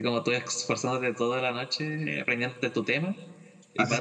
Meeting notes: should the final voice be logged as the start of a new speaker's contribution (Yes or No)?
Yes